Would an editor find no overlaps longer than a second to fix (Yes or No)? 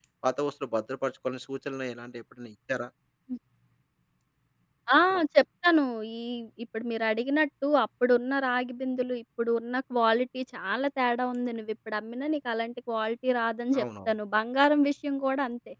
Yes